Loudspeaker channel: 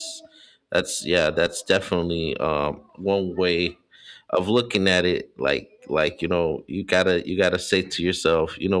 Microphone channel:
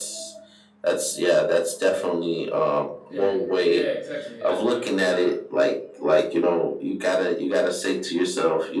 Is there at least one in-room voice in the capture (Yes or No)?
Yes